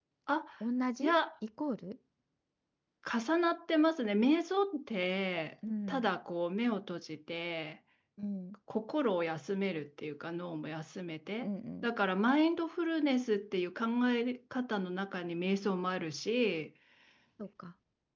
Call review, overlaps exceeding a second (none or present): none